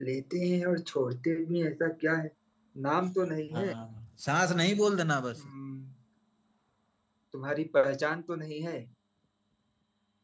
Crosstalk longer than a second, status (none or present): none